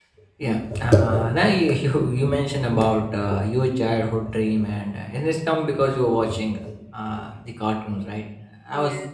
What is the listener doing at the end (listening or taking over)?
listening